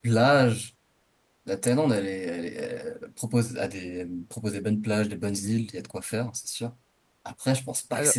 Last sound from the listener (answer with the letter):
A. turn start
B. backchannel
B